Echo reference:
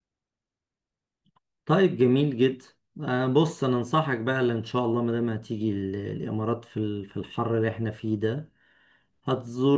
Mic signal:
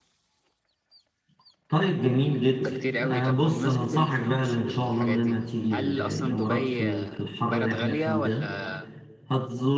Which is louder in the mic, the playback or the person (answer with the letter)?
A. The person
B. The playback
B